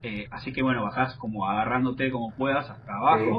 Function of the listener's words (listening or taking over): listening